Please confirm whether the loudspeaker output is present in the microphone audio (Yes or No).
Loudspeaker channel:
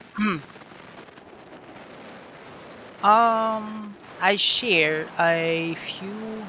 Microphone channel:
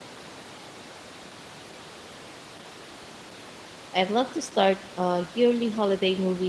No